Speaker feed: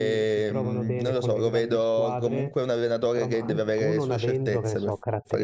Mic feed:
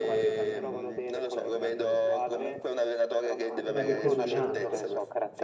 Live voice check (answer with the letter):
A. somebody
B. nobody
A